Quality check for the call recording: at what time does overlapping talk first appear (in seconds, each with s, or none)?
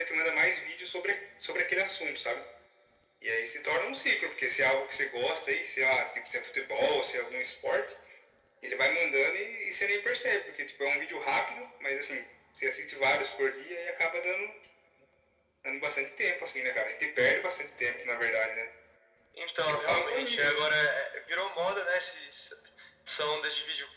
19.6 s